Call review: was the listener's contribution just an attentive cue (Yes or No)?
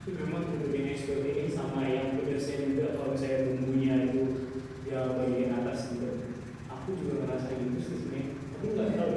Yes